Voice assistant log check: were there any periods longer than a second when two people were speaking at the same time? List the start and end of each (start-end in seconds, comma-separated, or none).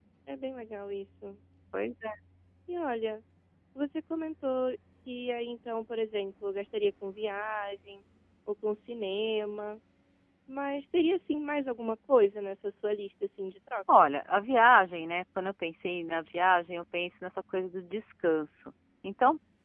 none